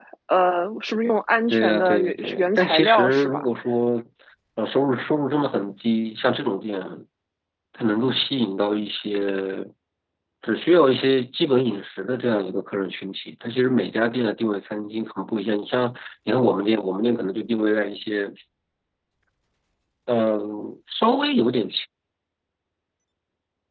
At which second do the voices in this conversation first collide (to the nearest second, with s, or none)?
1 s